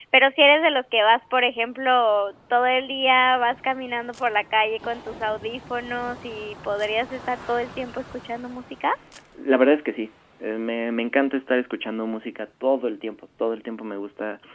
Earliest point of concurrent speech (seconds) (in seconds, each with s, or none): none